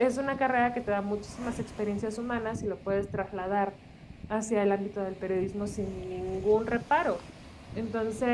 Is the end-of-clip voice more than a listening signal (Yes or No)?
No